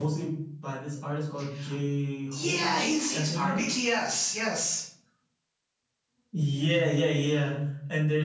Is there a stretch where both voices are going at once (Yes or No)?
Yes